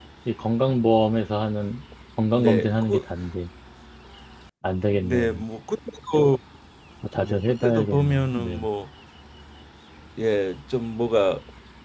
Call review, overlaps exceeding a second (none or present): present